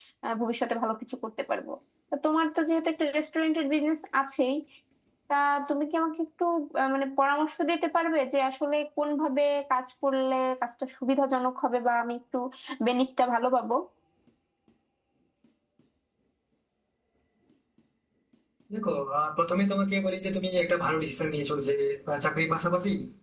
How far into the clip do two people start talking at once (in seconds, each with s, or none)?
none